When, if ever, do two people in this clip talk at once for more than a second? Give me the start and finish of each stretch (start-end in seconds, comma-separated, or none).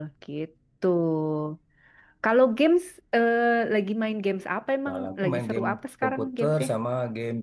4.9-6.7